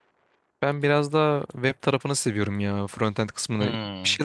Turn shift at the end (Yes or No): No